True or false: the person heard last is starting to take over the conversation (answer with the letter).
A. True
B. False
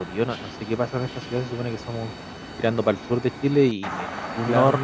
B